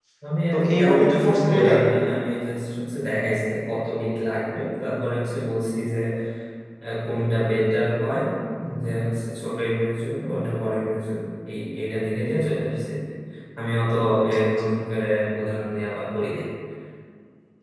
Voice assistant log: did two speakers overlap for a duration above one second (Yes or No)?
Yes